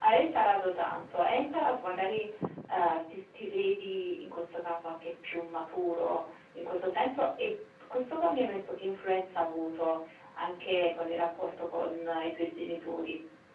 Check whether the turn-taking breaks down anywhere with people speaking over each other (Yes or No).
No